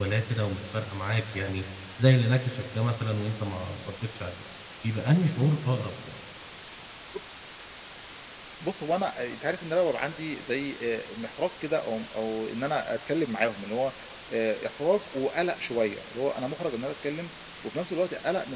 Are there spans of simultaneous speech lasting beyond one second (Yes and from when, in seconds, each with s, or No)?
No